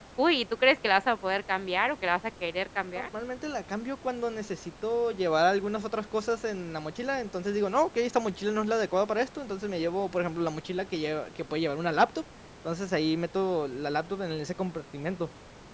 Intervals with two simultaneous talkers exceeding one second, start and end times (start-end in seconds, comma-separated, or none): none